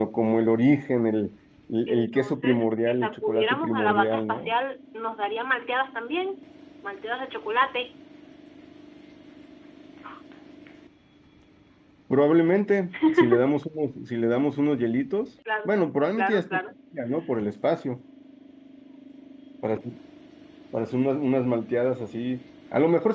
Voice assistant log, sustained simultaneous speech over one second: present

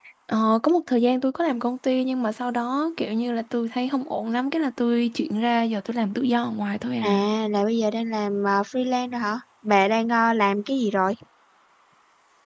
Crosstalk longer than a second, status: none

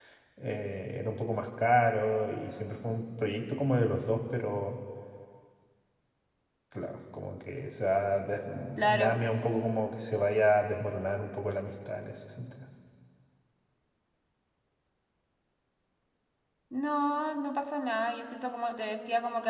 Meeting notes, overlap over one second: none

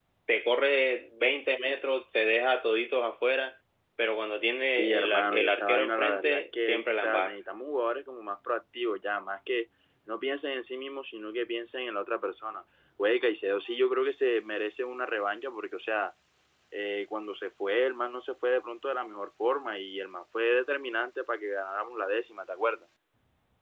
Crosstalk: present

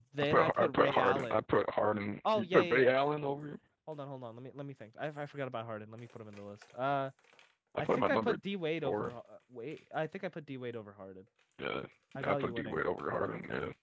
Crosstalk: present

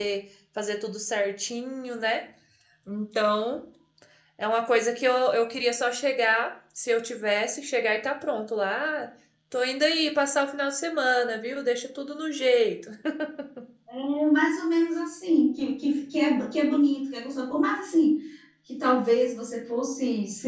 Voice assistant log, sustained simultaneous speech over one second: none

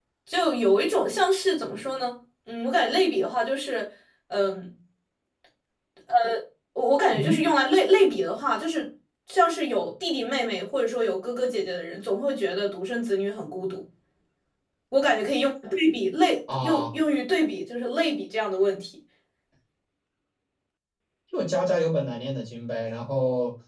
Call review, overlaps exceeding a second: none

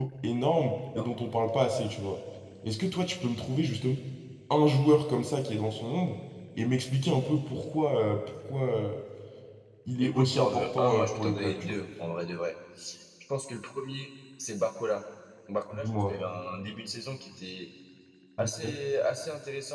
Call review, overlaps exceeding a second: present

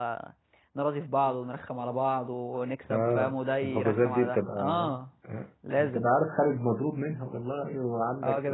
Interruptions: present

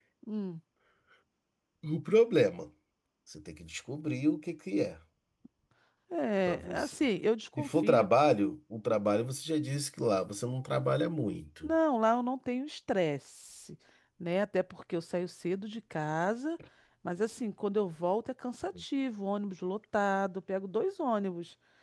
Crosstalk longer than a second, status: none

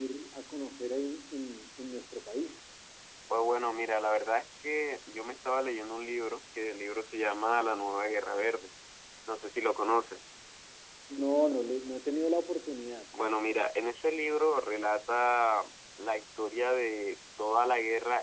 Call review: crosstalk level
none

